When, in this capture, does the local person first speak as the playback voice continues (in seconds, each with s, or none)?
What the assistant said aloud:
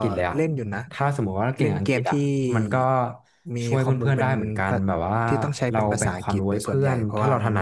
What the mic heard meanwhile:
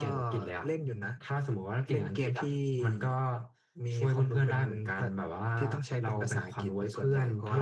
none